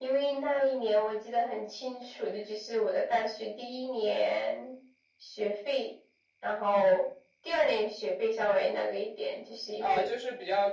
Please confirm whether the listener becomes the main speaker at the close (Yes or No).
Yes